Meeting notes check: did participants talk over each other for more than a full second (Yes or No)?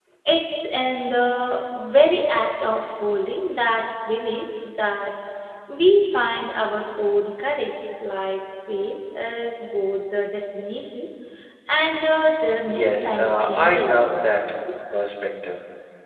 Yes